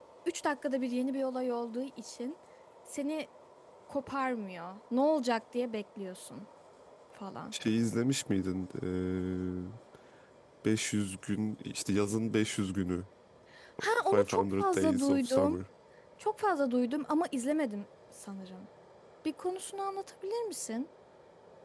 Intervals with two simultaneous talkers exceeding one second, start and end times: 14.1-15.6

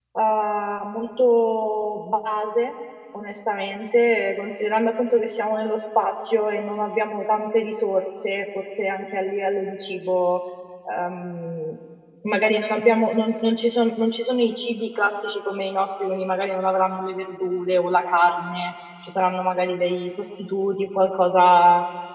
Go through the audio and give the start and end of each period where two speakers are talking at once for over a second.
none

